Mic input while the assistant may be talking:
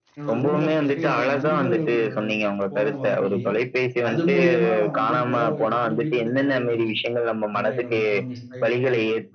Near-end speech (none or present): present